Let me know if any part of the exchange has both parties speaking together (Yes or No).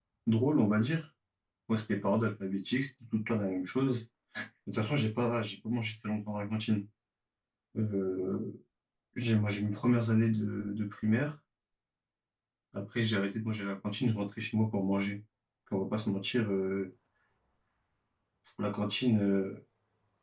No